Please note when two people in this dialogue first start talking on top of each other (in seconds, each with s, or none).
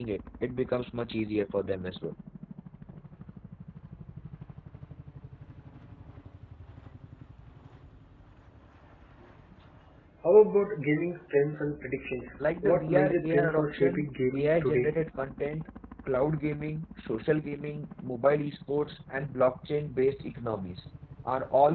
12.4 s